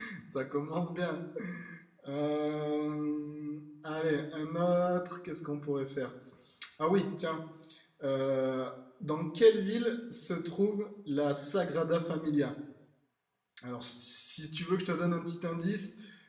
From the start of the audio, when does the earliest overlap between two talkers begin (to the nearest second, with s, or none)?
none